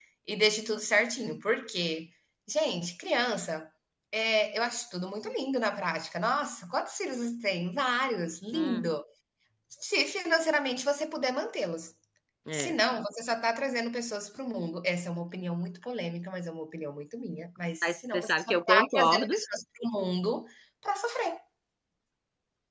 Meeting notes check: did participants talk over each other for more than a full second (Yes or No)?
Yes